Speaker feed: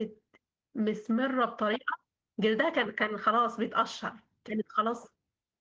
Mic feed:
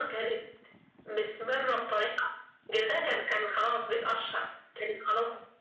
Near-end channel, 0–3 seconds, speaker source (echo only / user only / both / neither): echo only